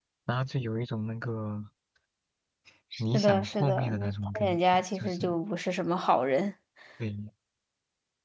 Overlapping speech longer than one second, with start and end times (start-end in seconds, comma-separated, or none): 3.0-5.3